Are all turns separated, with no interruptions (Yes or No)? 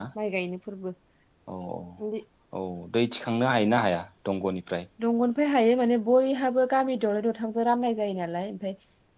Yes